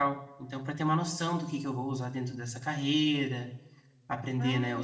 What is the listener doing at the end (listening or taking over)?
listening